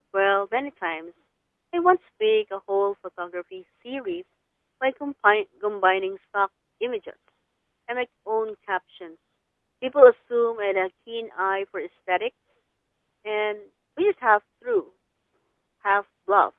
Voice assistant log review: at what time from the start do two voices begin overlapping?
none

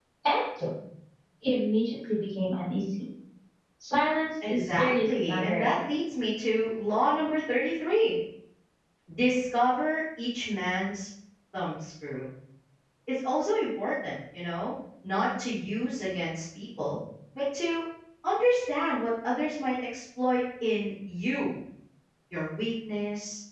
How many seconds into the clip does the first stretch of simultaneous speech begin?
4.5 s

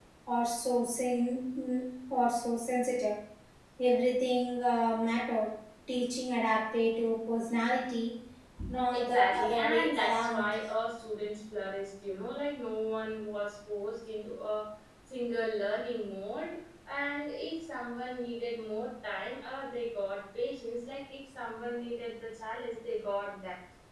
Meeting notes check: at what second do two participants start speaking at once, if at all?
8.9 s

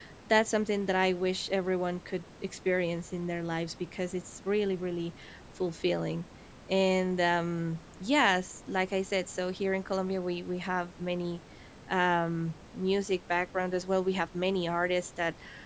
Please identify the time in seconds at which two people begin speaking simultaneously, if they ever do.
none

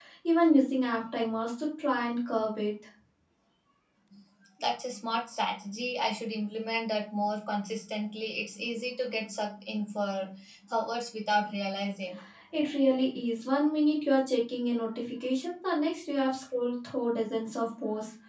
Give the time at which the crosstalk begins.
none

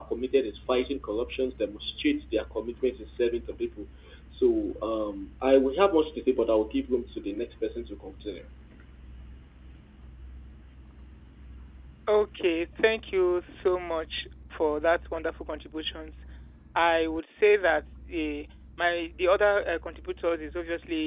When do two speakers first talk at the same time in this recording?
none

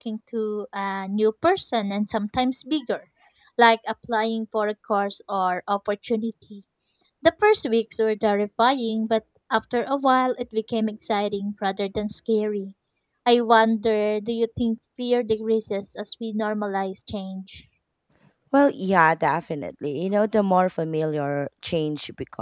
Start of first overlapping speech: none

